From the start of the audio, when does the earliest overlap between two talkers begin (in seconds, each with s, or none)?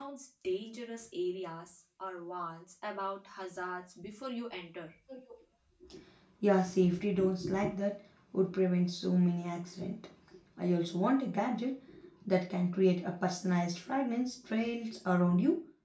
none